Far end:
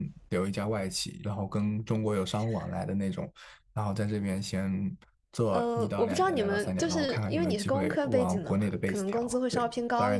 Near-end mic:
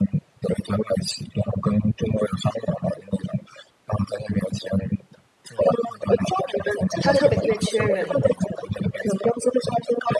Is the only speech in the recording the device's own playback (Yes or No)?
No